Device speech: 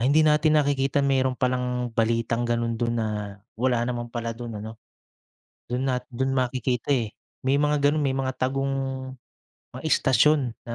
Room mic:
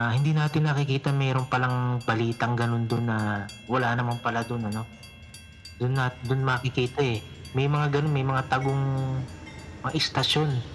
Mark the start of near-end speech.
none

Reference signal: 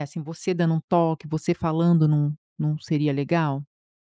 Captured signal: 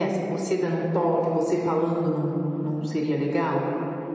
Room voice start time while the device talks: none

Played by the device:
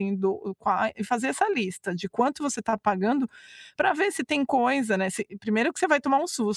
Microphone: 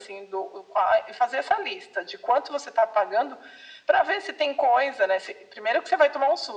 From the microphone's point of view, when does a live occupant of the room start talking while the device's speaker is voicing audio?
none

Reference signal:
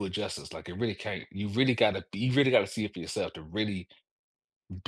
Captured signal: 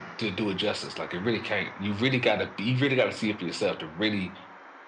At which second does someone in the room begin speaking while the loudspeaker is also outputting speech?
none

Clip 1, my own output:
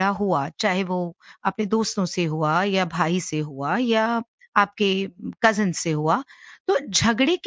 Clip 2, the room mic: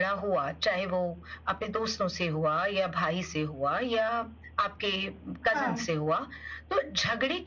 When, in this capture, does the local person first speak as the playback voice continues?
5.4 s

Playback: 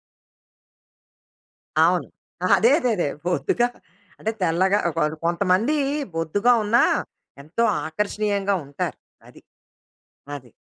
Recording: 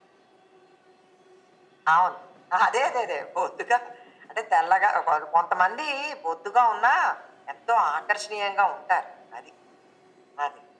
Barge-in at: none

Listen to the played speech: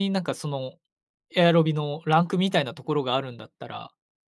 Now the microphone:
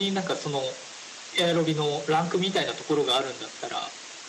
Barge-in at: none

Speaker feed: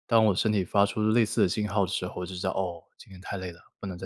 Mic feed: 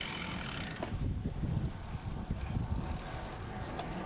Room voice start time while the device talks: none

